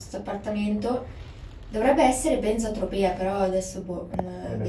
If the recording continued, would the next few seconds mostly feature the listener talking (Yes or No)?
Yes